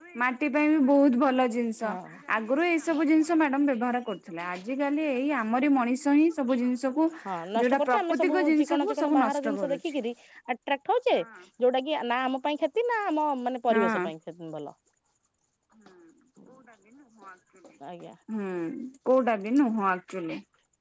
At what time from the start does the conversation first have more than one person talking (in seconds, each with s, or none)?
7.6 s